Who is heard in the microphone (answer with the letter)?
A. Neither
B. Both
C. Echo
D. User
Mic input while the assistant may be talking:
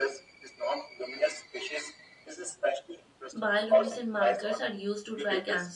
B